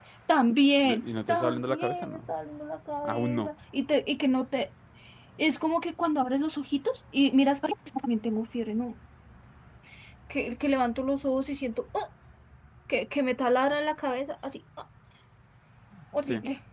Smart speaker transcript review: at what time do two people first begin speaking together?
0.8 s

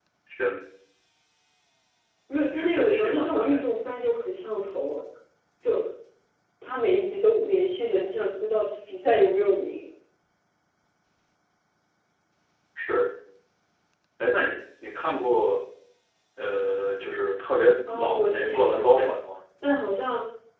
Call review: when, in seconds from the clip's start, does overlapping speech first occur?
2.3 s

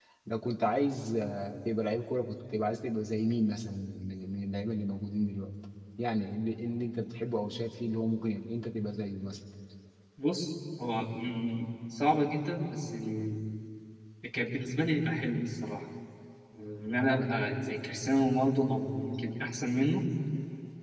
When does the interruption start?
none

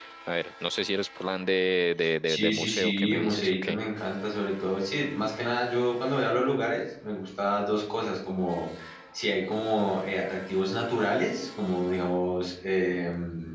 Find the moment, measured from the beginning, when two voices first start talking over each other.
2.3 s

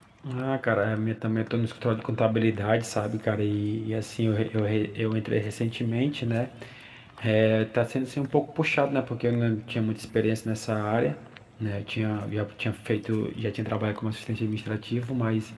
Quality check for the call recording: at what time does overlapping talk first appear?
none

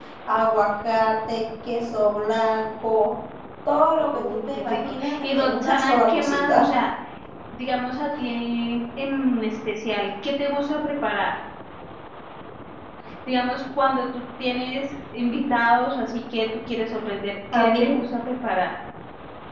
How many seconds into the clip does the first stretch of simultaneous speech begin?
4.1 s

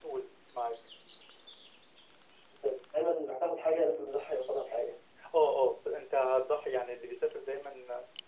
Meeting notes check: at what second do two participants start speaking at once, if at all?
none

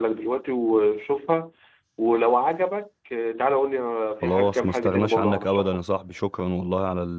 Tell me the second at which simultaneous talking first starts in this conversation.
4.2 s

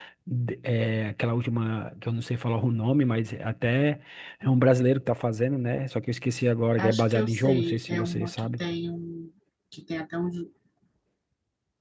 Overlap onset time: 6.8 s

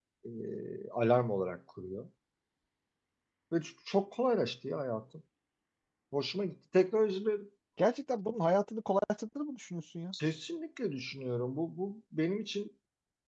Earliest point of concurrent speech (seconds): none

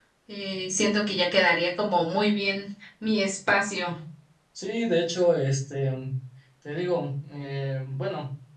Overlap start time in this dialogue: none

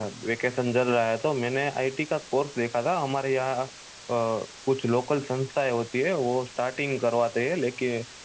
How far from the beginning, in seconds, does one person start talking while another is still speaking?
none

